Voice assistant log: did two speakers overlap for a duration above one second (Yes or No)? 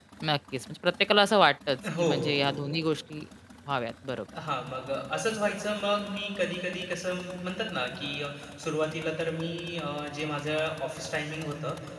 No